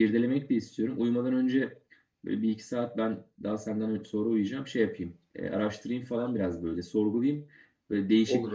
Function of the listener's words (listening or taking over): listening